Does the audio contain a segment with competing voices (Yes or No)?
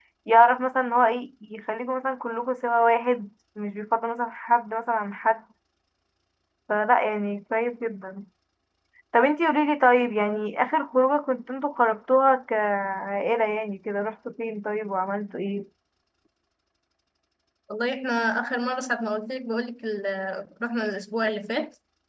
No